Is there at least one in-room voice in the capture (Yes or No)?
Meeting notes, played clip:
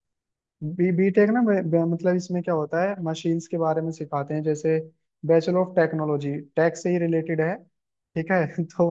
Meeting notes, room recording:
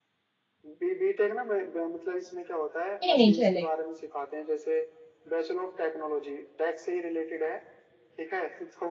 Yes